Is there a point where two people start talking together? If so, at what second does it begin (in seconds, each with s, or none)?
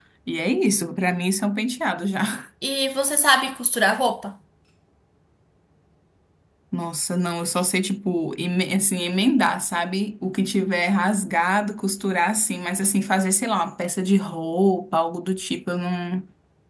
none